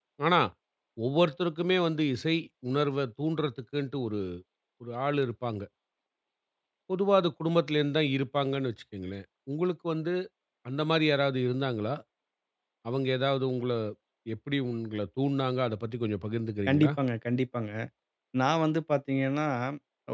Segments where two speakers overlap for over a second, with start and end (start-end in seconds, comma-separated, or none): none